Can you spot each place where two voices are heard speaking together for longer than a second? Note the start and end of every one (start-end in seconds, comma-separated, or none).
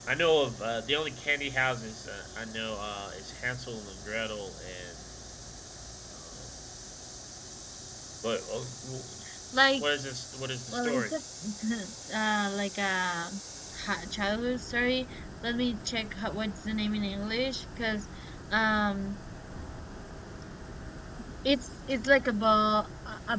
none